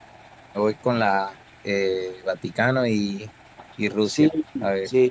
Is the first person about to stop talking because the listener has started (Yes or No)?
Yes